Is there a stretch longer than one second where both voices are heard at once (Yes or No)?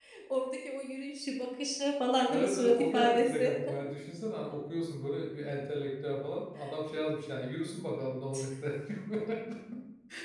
Yes